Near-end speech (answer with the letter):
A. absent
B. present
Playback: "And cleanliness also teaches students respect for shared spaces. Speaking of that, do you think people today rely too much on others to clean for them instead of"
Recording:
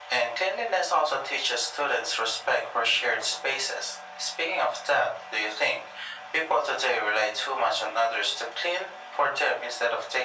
A